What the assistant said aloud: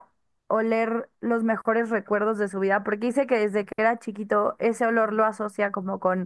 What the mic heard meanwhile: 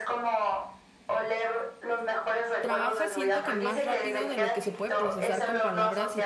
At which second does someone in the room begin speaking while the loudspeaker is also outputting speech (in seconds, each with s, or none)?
2.6 s